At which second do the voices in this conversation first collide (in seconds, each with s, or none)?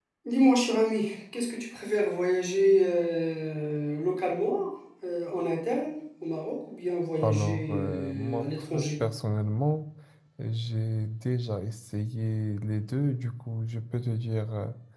7.2 s